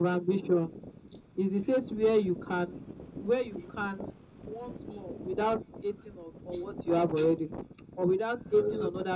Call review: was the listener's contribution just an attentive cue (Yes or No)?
Yes